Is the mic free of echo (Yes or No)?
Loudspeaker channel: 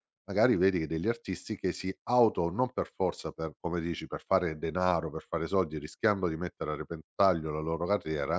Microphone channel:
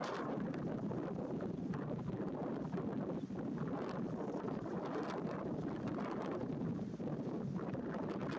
Yes